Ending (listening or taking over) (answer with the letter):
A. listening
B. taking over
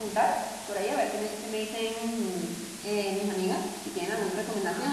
A